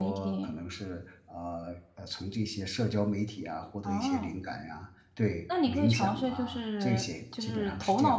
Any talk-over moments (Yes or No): Yes